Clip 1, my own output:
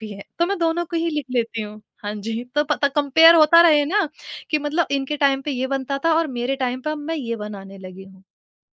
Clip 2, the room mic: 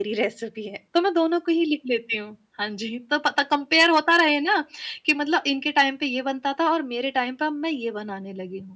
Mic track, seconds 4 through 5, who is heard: echo only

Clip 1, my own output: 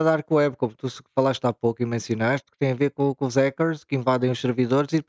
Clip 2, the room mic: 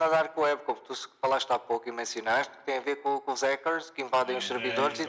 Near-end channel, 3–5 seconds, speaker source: both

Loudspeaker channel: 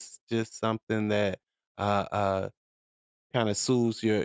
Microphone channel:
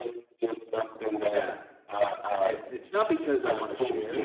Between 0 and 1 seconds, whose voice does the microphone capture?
echo only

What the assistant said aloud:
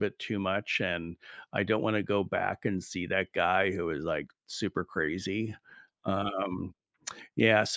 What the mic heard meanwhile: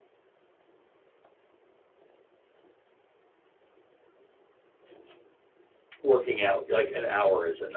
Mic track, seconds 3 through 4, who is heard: neither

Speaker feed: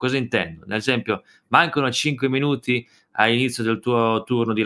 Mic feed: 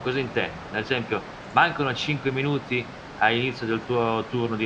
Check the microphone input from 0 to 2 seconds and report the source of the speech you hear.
echo only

